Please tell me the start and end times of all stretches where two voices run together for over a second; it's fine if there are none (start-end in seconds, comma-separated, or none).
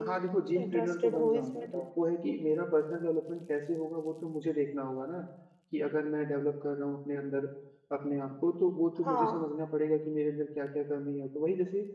0.6-1.8